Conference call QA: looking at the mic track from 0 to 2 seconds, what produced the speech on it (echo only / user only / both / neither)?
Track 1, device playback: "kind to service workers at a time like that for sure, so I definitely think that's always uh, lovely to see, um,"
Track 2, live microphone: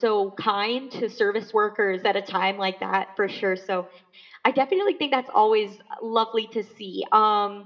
echo only